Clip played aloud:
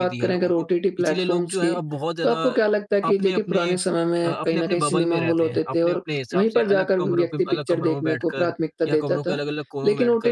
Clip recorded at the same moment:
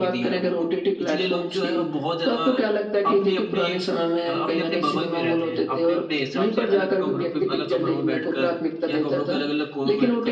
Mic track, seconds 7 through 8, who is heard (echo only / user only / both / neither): echo only